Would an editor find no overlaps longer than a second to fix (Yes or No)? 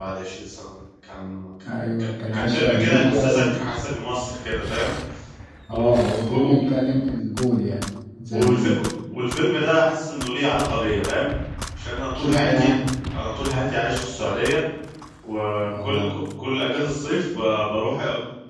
No